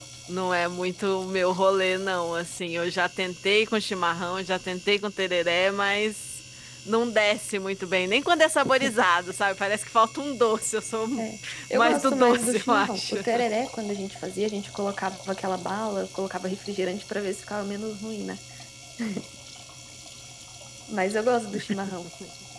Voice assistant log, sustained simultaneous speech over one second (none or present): present